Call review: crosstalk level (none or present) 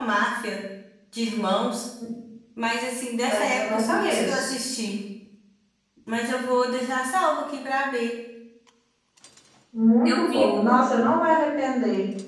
present